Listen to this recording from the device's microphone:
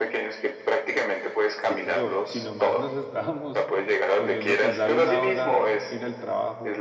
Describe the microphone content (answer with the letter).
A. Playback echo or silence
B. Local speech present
B